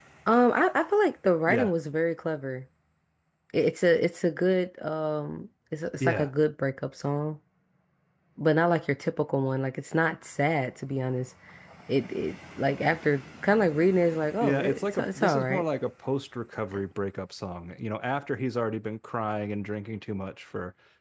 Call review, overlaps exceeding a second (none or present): present